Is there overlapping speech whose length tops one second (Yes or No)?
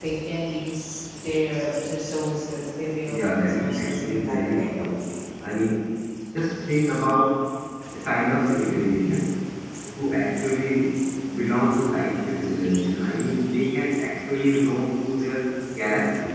Yes